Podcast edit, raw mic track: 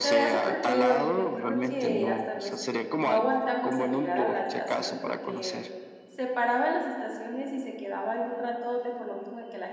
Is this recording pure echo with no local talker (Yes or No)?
No